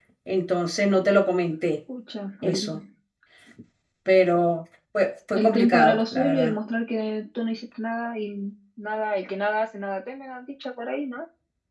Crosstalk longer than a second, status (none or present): present